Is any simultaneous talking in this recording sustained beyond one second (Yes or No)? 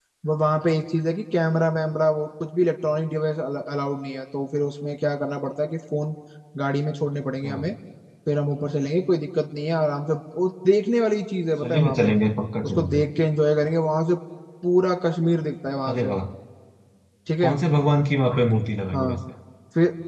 No